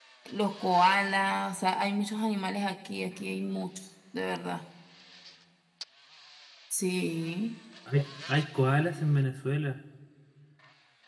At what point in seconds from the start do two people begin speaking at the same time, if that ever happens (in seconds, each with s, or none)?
none